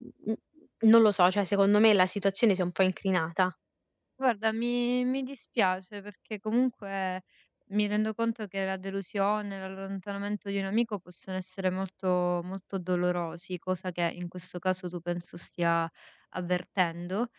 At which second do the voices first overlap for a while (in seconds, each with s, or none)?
none